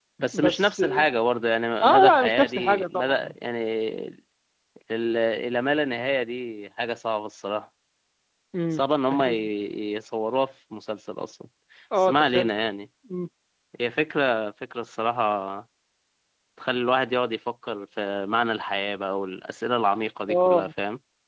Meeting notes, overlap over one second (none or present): present